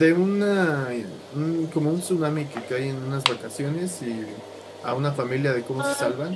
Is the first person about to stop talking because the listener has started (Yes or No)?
Yes